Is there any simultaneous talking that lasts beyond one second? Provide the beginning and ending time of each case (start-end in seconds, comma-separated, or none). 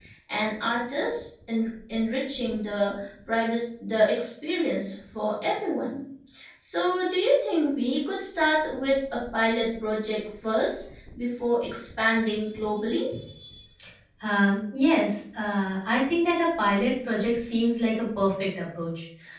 none